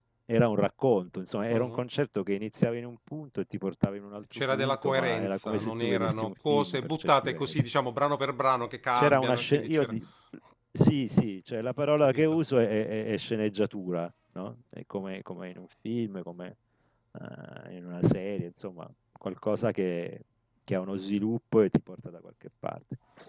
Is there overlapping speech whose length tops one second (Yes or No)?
Yes